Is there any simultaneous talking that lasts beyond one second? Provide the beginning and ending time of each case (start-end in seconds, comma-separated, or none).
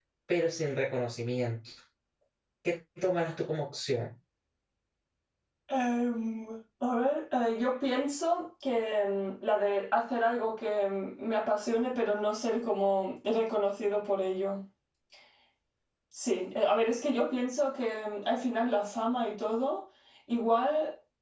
none